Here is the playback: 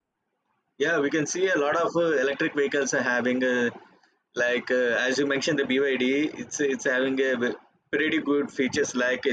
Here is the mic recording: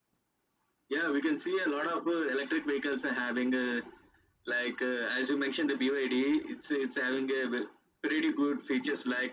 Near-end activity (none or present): none